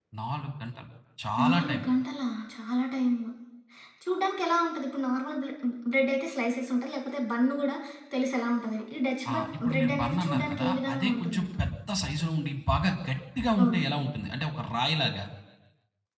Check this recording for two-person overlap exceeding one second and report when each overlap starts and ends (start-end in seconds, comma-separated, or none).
9.3-11.6